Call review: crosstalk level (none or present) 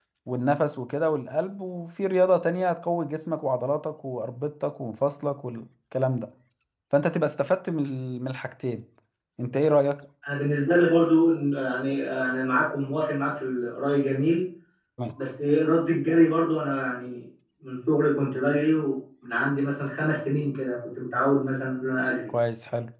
none